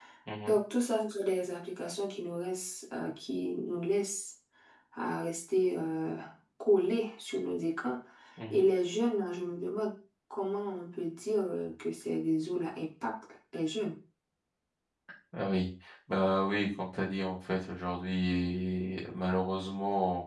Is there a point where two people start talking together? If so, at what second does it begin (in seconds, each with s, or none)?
none